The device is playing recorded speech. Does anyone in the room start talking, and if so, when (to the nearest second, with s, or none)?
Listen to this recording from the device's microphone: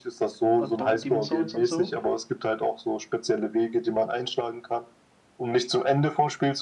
1 s